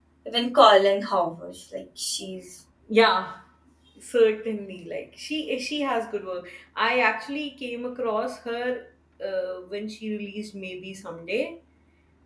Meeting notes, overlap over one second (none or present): none